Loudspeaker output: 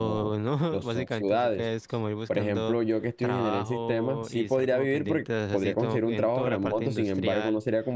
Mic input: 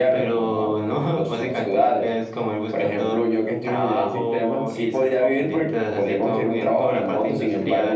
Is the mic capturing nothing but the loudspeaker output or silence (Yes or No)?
Yes